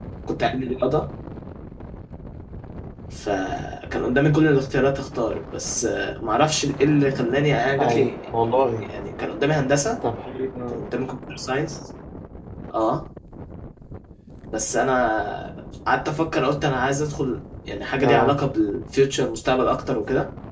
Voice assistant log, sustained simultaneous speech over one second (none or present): none